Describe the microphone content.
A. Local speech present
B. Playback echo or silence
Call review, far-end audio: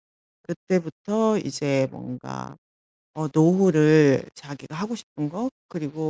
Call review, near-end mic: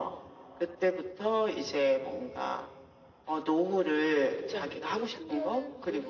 A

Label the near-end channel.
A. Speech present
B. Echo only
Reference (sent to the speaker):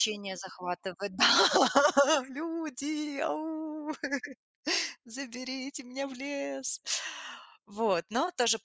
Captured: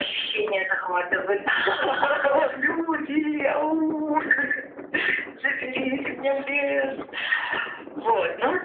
B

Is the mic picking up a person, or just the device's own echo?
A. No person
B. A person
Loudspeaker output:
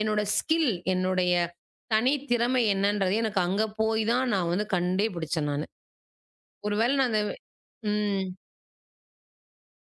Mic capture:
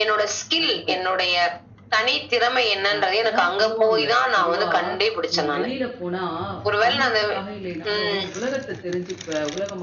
B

